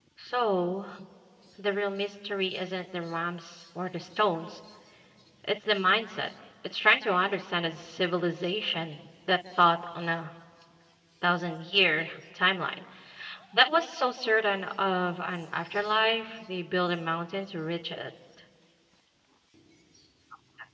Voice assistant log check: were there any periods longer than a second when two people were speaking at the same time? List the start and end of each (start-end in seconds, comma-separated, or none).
none